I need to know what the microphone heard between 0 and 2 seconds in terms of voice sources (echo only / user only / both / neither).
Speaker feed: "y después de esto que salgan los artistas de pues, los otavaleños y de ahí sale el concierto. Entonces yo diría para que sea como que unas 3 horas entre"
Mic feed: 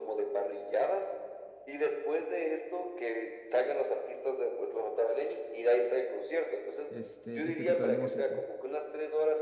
echo only